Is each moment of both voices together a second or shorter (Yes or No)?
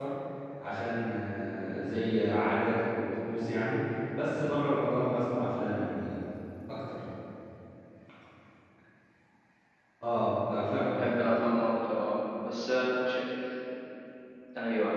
Yes